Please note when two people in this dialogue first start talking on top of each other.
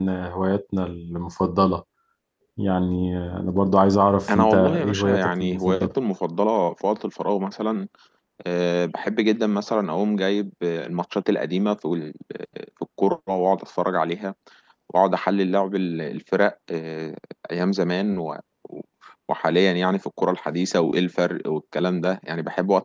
4.3 s

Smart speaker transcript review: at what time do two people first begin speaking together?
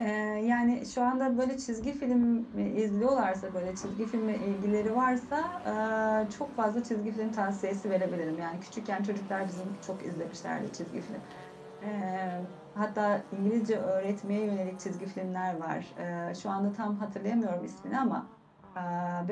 none

